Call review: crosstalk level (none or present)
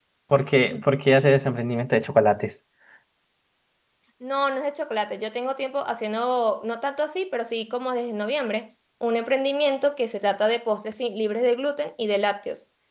none